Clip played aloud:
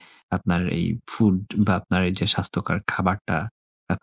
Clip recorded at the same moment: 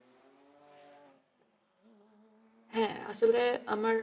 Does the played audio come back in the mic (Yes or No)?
No